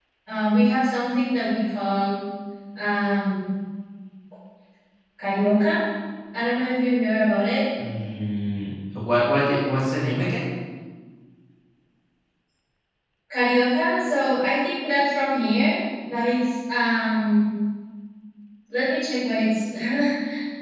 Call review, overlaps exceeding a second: none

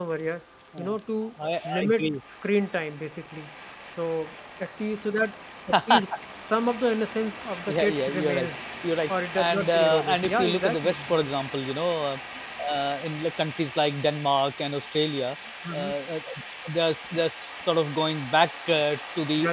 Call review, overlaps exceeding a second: present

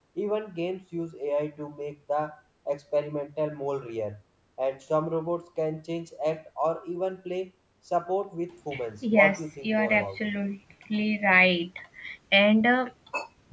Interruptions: present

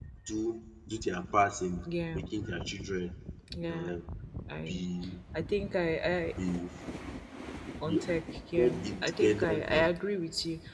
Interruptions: present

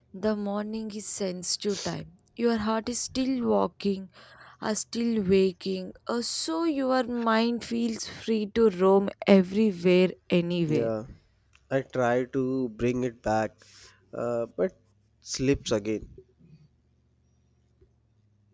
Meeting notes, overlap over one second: none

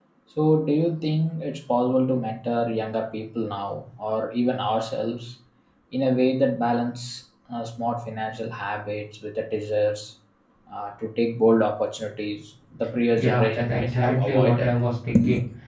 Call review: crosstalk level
present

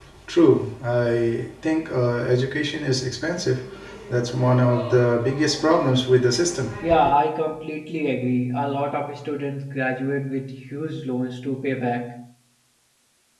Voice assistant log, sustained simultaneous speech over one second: none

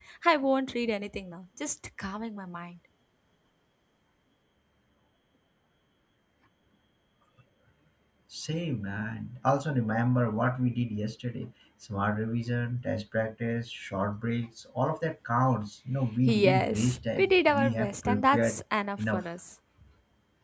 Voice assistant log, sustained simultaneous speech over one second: present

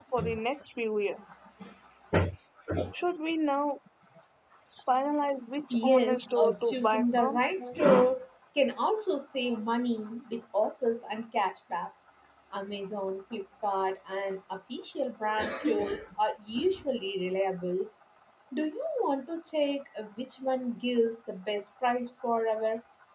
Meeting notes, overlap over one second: present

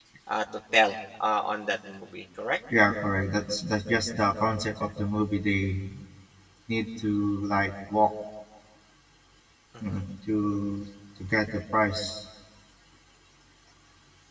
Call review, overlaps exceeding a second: none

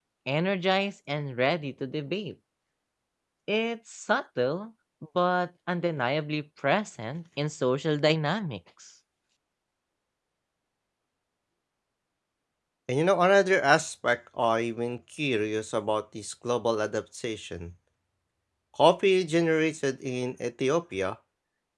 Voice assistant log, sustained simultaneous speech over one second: none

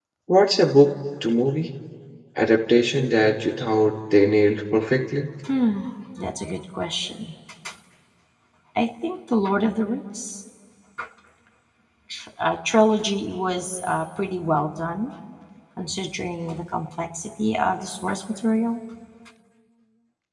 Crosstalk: none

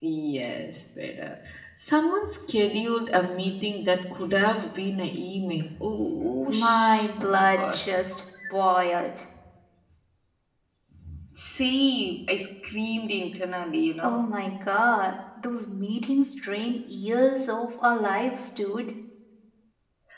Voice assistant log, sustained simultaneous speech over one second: present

